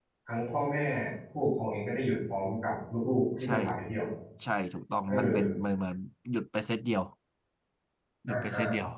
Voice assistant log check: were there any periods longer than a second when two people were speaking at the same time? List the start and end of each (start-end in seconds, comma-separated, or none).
none